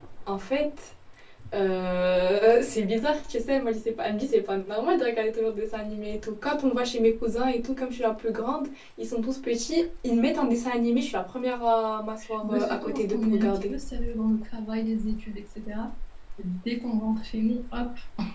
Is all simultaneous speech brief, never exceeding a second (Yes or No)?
No